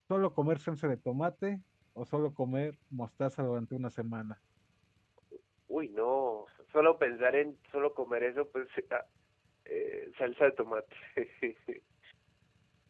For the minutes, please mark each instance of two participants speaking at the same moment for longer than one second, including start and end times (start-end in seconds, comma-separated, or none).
none